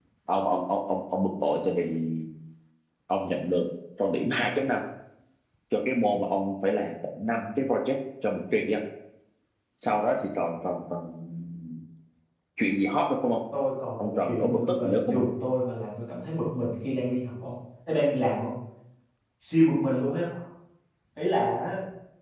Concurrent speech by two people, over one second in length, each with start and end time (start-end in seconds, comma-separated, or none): 14.0-15.3